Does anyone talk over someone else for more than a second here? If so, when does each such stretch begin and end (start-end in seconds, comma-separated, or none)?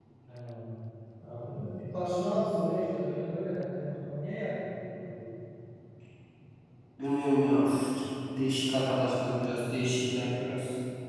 none